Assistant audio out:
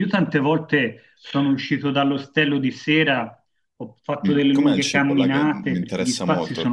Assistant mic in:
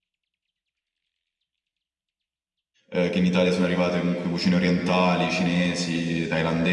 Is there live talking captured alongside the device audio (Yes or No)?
Yes